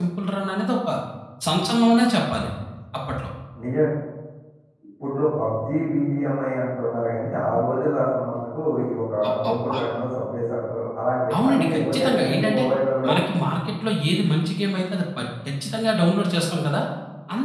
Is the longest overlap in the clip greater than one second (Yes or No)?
Yes